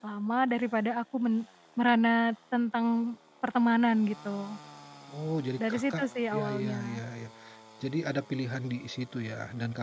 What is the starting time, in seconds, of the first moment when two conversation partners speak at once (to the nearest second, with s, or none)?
6 s